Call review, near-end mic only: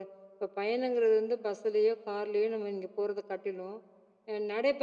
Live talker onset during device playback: none

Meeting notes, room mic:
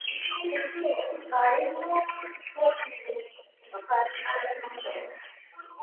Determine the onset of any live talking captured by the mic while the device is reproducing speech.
none

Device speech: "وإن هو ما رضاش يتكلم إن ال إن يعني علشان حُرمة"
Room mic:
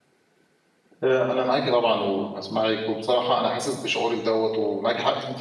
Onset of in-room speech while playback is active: 1.0 s

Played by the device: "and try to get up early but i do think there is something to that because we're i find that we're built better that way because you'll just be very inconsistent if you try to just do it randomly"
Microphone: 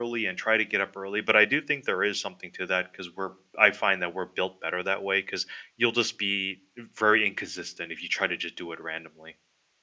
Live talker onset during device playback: none

